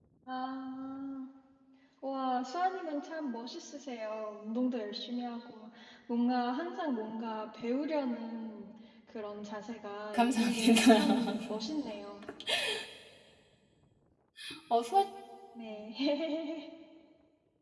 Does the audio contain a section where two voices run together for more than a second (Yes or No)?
Yes